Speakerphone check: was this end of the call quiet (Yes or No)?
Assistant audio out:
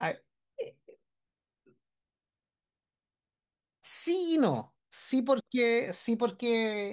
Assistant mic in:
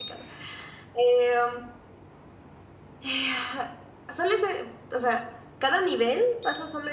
No